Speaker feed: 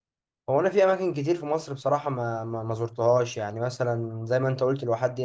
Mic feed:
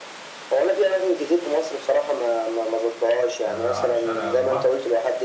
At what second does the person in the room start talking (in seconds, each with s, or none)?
3.5 s